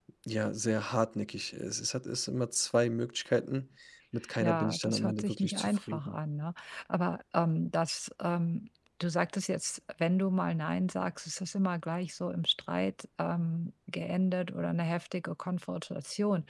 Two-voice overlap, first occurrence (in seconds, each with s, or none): 4.4 s